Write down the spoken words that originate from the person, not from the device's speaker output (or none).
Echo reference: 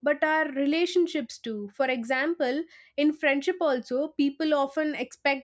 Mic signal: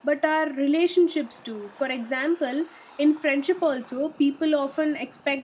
none